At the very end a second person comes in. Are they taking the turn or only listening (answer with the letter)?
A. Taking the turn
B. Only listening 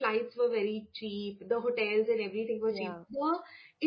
B